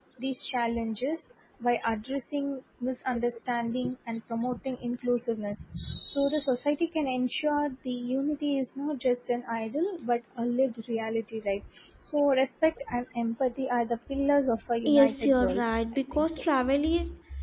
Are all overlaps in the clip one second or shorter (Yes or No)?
No